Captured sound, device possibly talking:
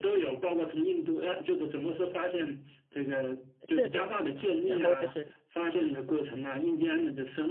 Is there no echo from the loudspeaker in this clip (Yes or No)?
No